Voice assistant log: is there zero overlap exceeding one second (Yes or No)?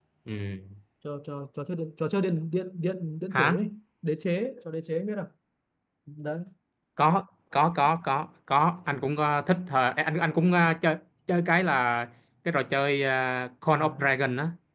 Yes